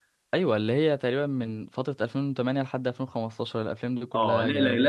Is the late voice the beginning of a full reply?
Yes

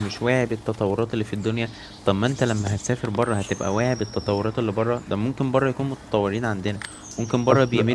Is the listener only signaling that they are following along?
Yes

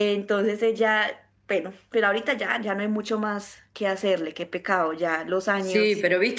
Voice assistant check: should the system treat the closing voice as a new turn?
Yes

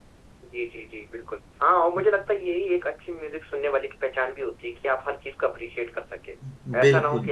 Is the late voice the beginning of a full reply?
No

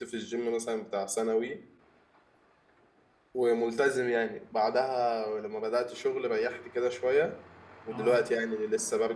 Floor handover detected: No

